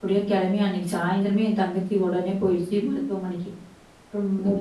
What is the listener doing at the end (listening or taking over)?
listening